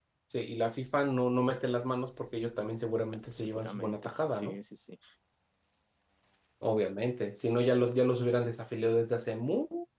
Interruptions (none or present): present